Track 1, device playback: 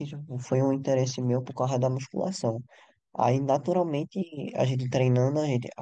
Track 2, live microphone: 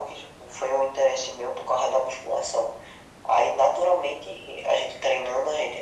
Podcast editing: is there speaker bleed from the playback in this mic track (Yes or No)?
Yes